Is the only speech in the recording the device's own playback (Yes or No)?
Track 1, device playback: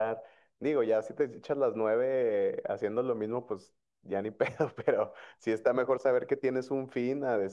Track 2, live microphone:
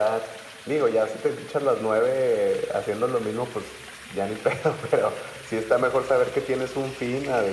Yes